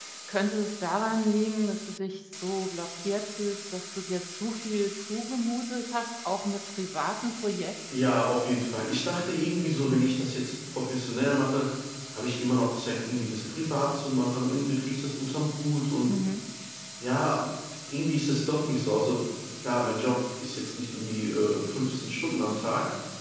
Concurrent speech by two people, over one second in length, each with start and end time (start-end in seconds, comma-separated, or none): none